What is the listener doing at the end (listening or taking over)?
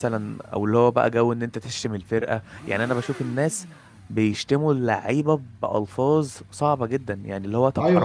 taking over